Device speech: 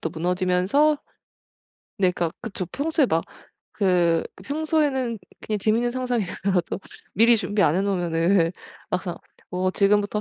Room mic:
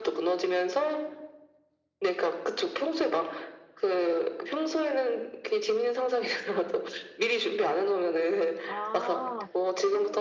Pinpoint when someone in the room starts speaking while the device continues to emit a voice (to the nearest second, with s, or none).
9 s